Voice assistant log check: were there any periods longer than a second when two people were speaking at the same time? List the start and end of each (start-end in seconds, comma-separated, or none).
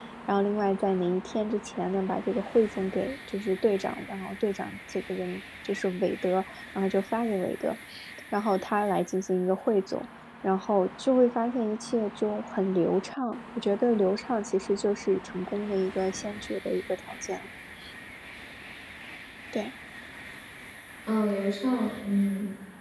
none